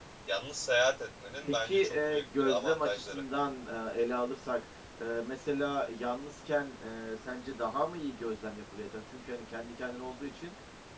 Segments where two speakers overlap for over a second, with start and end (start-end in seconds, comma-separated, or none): 1.4-3.2